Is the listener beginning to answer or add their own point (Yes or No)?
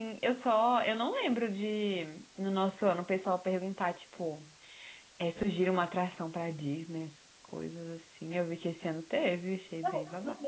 Yes